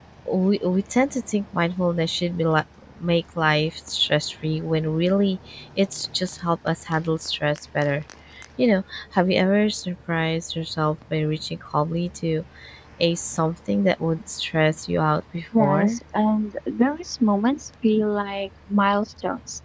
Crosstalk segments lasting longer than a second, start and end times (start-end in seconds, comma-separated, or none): none